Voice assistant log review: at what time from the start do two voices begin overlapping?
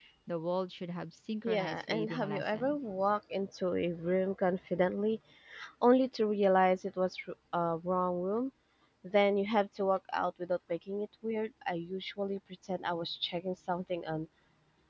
1 s

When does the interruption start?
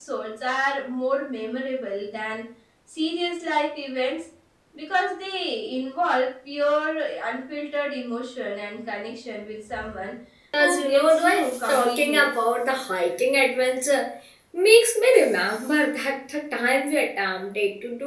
11 s

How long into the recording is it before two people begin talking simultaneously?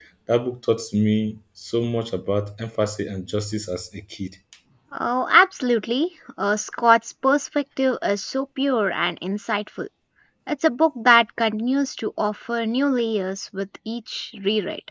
none

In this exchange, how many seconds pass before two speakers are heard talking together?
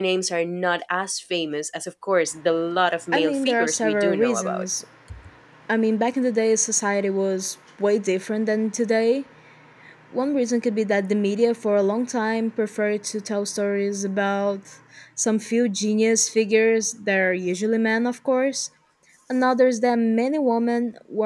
3 s

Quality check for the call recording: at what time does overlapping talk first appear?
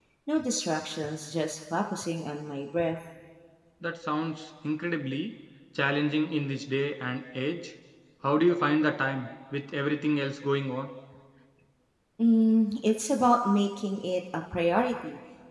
none

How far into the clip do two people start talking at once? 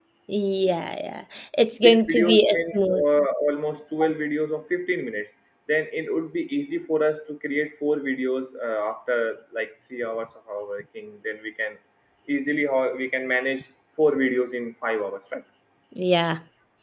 2 s

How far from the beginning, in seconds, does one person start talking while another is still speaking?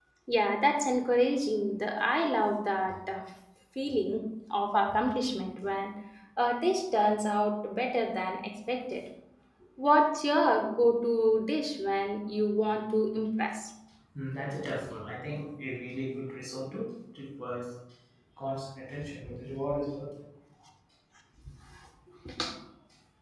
none

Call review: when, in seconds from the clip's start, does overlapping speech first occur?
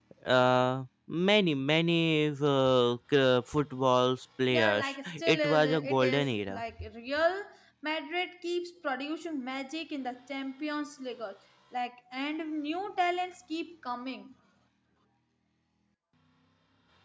5 s

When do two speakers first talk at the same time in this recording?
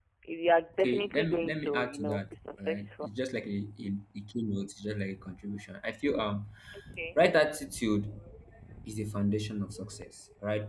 1 s

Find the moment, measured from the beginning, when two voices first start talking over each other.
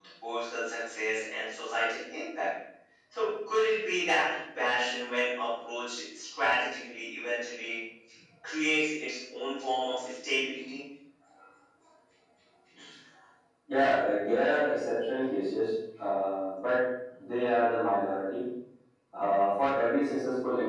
none

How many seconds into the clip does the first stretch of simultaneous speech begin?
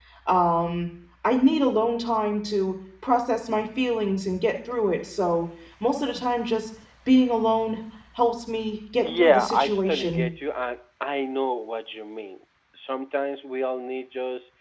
9 s

